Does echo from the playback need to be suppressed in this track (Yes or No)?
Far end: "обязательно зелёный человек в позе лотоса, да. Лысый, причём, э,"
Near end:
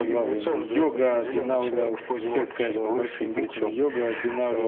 Yes